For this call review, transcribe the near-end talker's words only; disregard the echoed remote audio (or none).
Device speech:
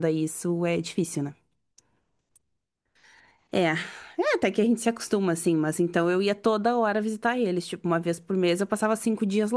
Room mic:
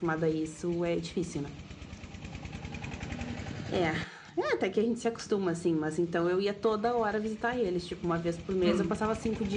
Hum.